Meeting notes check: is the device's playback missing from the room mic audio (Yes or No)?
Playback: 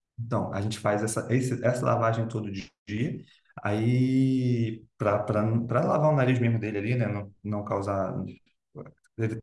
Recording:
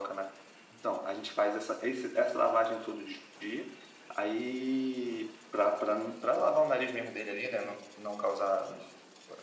No